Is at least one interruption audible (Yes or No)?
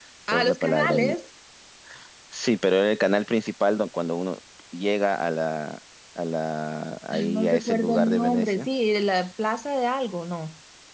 Yes